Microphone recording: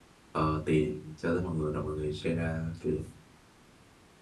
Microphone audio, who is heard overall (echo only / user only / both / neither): user only